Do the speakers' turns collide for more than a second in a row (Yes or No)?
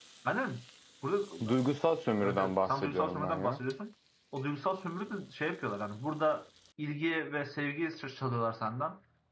Yes